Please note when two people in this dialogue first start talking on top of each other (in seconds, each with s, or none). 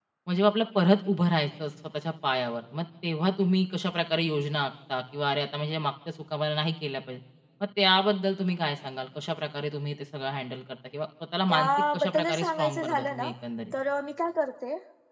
11.5 s